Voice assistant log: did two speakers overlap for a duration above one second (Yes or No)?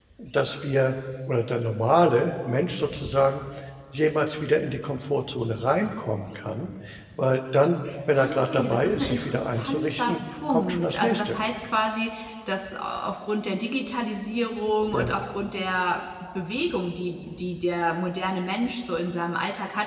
Yes